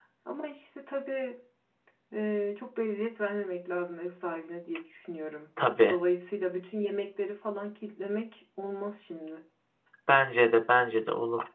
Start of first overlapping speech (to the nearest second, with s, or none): none